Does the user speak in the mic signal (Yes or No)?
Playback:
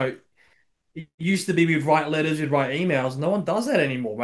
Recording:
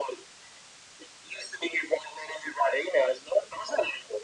No